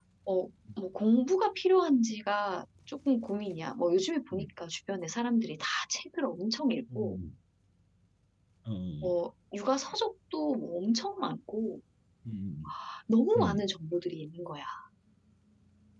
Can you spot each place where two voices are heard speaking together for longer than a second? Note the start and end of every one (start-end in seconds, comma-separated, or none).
none